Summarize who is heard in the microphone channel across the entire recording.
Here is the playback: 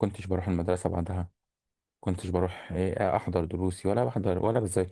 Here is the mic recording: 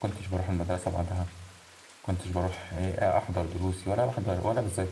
echo only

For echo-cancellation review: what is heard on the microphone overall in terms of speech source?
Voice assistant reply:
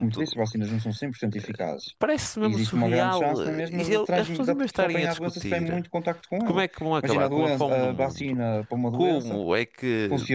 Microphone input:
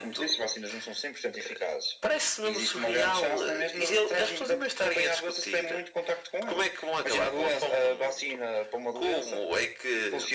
echo only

